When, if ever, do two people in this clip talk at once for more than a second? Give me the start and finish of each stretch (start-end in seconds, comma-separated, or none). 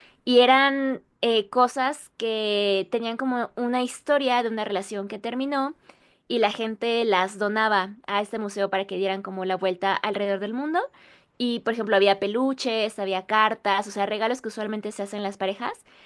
none